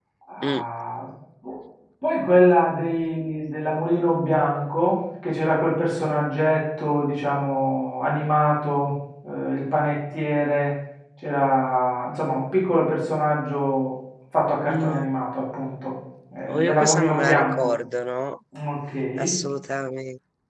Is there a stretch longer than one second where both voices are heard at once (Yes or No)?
Yes